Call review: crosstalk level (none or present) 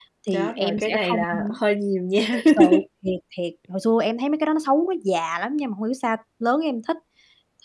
present